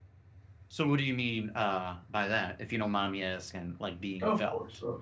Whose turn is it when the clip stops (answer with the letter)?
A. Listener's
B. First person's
A